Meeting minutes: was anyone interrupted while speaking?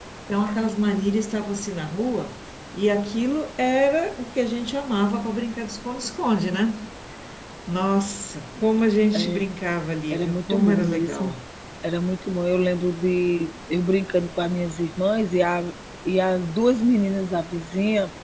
Yes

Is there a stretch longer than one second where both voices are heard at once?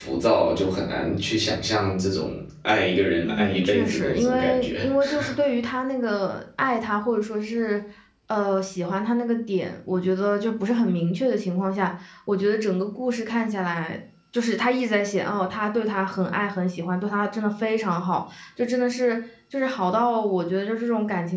Yes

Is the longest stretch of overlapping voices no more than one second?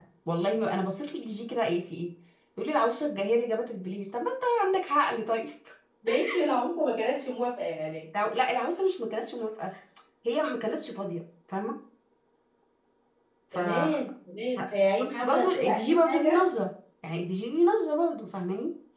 No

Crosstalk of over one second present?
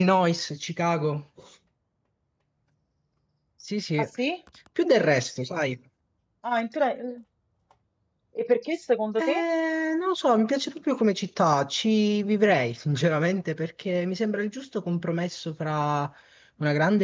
No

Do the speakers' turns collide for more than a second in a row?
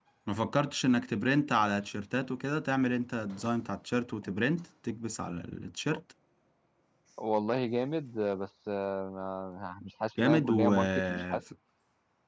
Yes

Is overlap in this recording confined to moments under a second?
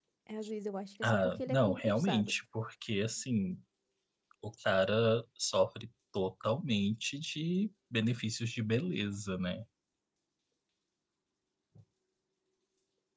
No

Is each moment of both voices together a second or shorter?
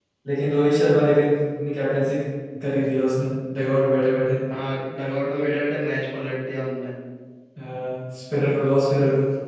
Yes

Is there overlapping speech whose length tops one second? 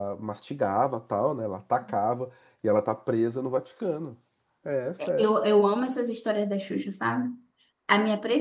No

